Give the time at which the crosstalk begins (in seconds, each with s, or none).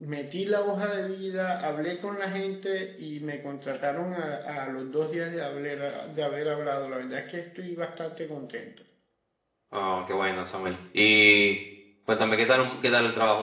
none